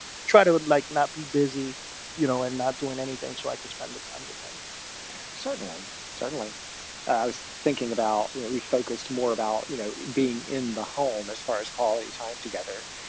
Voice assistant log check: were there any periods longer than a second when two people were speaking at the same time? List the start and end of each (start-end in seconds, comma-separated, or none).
none